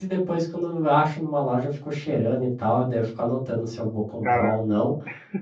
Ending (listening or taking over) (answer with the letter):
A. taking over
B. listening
B